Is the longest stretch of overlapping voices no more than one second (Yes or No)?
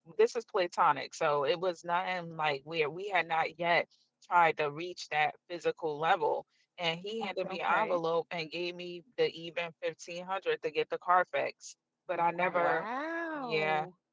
Yes